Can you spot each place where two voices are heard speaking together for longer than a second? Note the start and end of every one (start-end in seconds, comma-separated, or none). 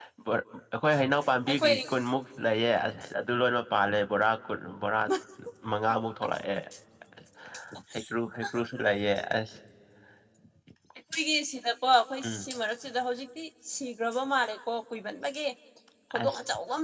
none